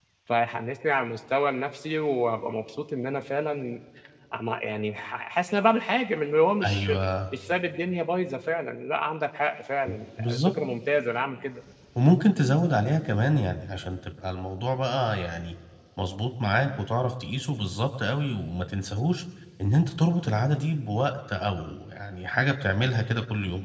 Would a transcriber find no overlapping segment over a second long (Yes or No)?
Yes